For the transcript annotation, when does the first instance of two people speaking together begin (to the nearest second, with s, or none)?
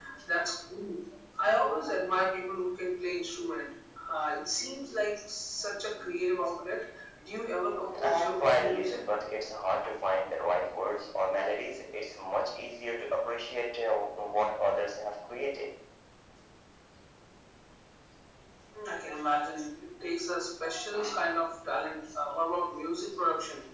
8 s